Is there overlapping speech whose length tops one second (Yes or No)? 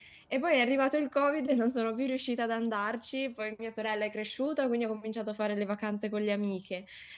No